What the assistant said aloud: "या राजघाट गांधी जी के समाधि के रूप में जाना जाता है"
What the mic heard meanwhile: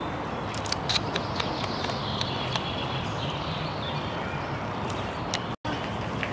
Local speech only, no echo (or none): none